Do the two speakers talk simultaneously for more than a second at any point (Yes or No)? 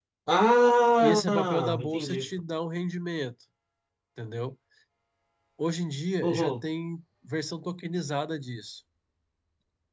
Yes